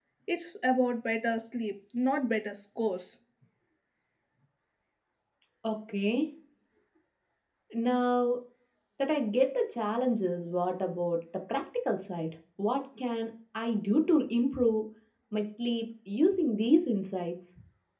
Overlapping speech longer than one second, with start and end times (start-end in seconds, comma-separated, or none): none